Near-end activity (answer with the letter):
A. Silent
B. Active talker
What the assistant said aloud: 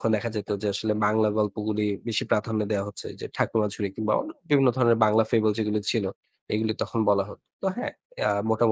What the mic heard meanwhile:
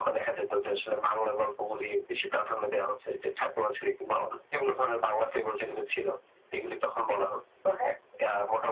A